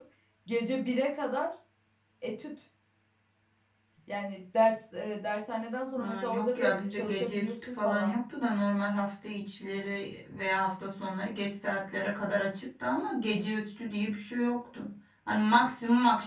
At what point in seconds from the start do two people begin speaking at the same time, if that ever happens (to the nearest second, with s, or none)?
6 s